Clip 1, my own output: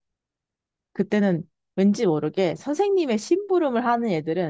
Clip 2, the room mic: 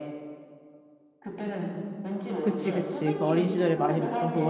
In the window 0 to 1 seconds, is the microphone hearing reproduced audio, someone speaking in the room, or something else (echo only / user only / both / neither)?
neither